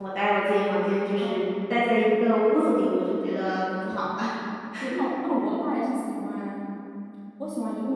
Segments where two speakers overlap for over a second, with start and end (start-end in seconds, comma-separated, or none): none